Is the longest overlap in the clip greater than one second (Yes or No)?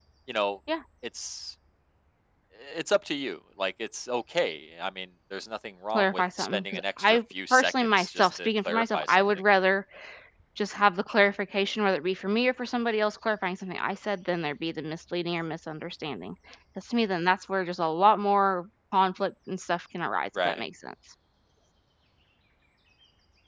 Yes